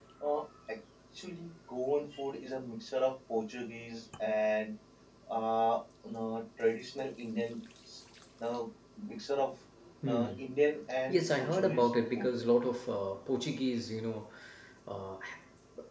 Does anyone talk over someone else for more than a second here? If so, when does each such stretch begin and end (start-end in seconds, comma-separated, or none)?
11.1-12.3